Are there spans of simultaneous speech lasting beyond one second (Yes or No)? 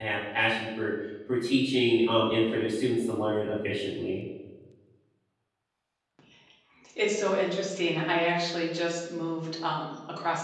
No